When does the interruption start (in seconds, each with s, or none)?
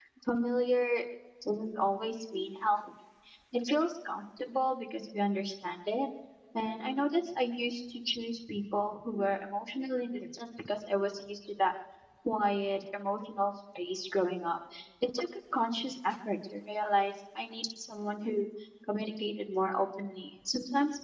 none